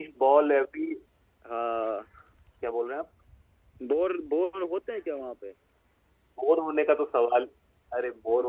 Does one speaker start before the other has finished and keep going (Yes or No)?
No